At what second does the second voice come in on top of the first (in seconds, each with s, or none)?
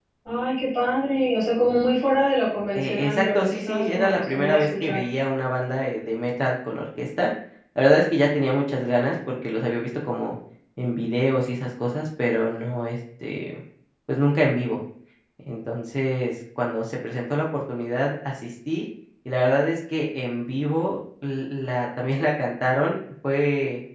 2.8 s